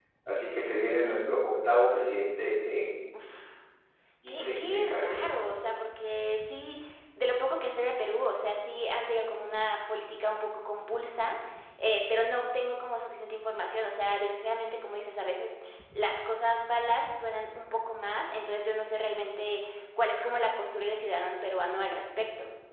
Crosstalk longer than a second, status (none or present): present